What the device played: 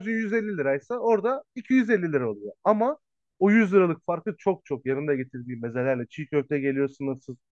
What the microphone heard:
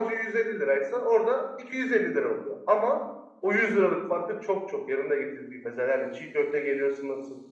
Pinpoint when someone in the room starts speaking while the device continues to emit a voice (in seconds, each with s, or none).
none